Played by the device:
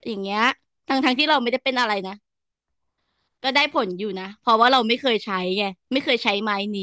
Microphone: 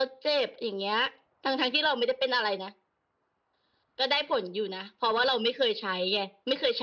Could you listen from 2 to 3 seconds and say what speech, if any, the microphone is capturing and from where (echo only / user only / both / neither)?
echo only